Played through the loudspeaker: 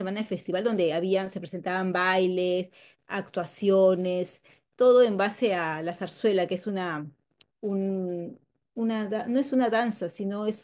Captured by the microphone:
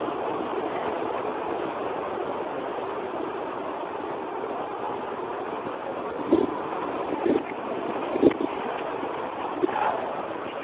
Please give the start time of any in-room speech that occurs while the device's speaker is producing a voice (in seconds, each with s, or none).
none